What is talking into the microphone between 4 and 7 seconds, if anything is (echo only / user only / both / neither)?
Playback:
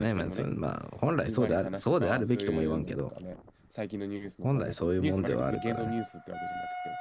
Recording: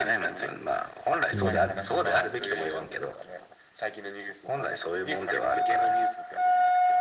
echo only